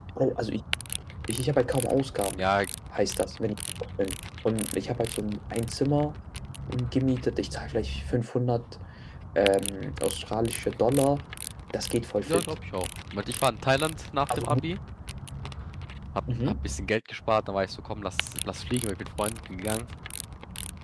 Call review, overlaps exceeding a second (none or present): none